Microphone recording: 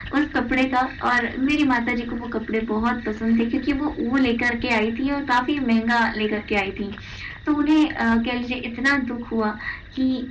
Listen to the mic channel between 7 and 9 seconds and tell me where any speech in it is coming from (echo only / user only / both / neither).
echo only